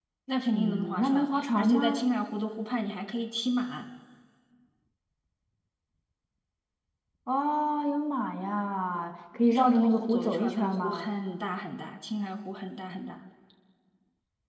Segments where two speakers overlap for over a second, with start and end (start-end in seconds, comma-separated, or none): 0.5-2.0, 9.5-11.1